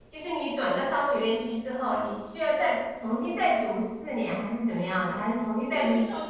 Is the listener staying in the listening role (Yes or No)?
No